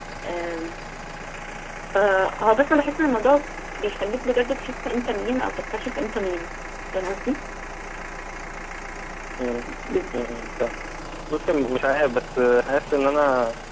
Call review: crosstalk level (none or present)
none